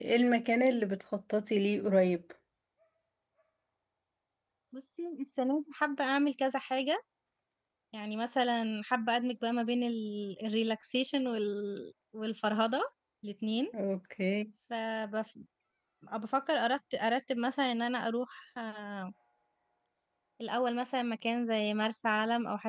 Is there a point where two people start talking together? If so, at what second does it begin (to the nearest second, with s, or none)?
none